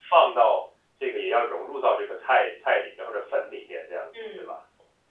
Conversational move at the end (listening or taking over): taking over